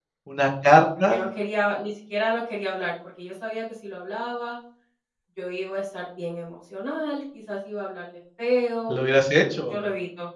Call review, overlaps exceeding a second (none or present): none